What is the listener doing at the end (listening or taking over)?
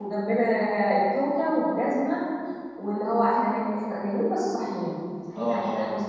listening